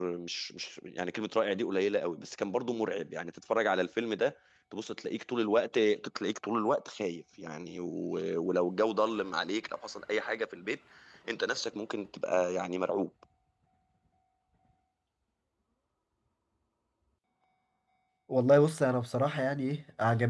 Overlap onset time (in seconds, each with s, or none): none